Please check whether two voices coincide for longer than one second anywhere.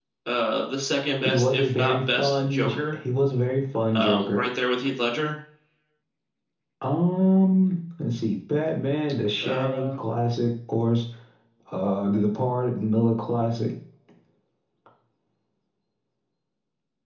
Yes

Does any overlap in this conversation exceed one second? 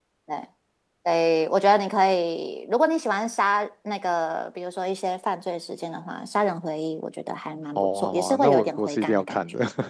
Yes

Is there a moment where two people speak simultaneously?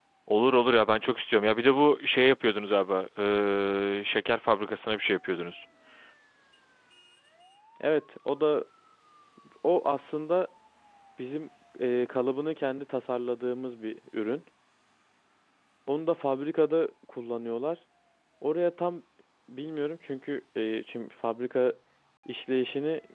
No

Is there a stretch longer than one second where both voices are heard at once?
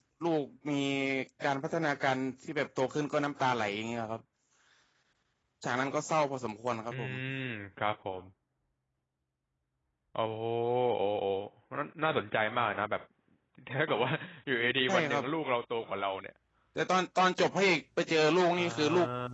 No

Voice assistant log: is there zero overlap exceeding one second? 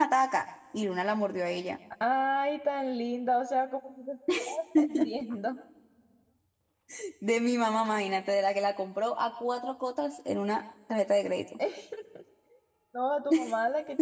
Yes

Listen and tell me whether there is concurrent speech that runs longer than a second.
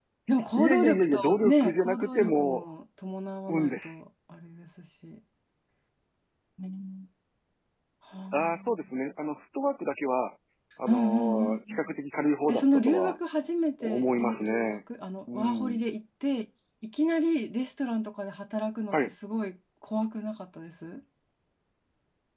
Yes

